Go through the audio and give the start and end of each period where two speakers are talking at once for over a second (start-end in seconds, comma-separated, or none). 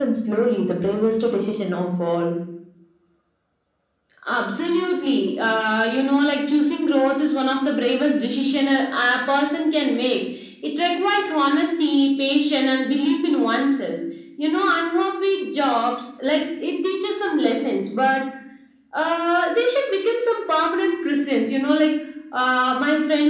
none